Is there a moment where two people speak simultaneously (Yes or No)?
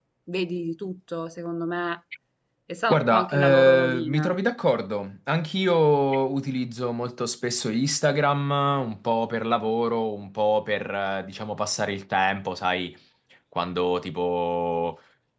Yes